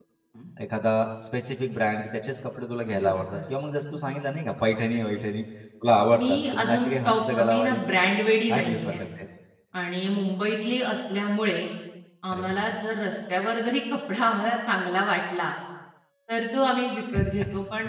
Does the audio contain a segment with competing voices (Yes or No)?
Yes